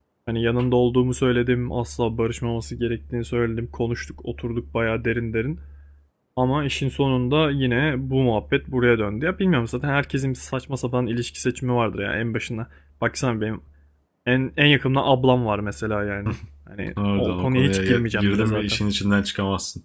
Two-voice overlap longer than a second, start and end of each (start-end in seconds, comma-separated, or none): 17.2-18.8